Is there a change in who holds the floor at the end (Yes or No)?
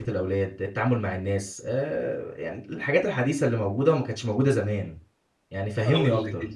Yes